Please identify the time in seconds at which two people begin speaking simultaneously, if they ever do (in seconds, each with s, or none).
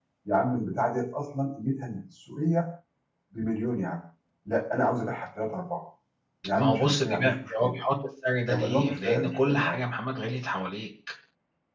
6.5 s